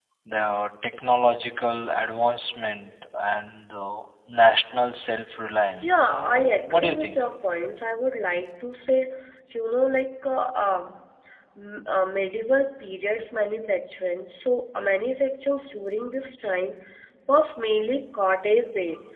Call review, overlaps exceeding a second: present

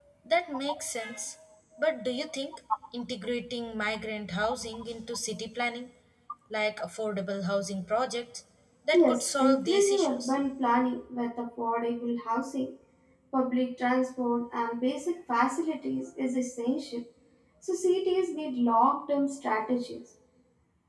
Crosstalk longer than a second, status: present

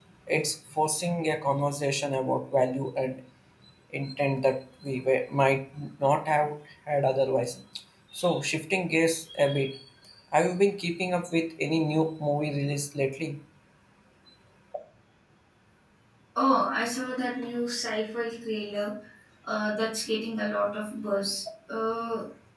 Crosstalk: none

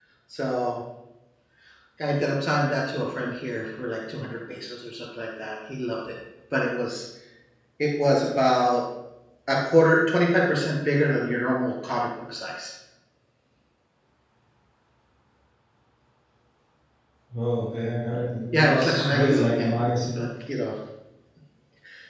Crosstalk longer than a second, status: present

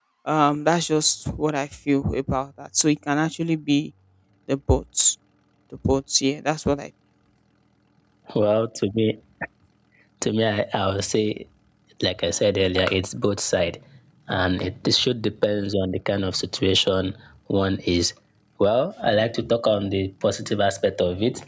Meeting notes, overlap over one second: none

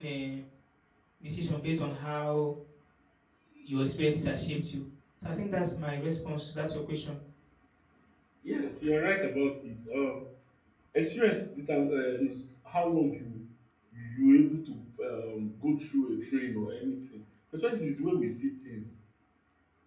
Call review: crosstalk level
none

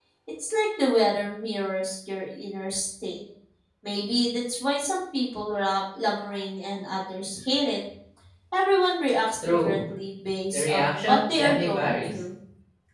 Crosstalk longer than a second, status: present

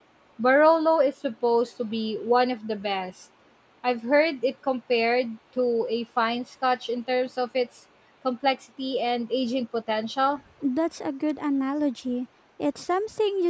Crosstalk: none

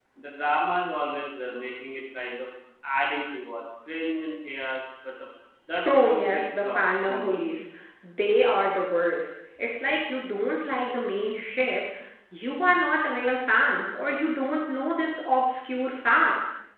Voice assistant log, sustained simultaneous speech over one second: present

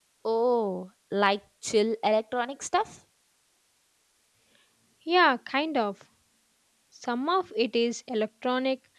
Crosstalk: none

